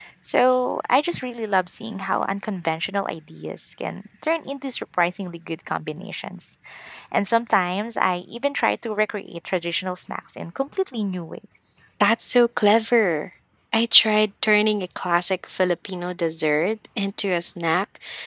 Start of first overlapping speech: none

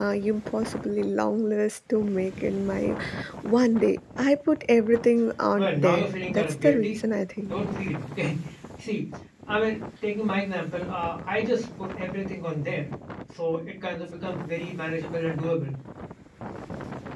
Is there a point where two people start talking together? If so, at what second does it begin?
5.5 s

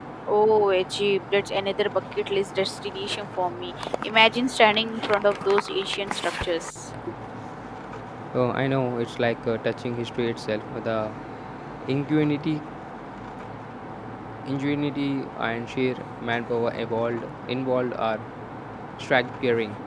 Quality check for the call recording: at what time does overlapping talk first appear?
none

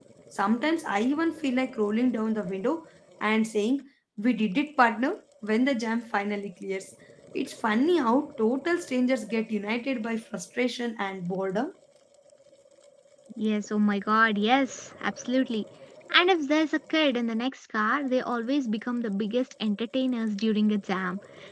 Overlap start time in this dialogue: none

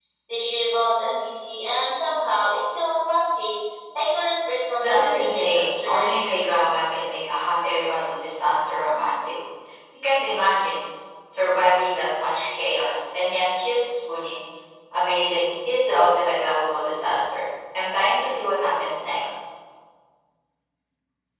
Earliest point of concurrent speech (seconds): 4.8 s

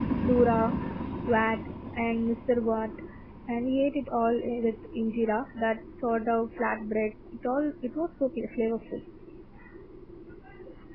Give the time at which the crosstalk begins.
none

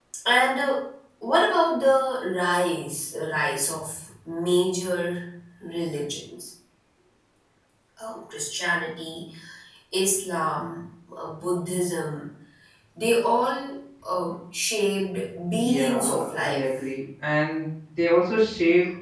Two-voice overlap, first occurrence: 15.5 s

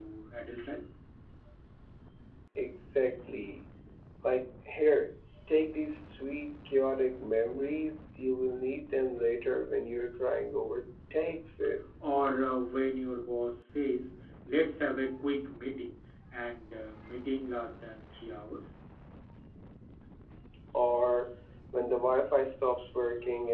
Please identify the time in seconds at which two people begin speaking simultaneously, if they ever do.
none

